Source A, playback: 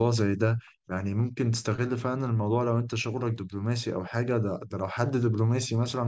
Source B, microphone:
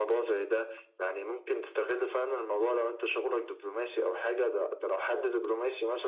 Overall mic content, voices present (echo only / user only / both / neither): echo only